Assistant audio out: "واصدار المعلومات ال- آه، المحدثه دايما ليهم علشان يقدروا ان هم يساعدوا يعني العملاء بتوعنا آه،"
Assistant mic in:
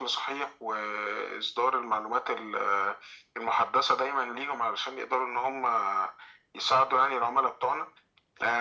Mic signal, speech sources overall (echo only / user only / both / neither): echo only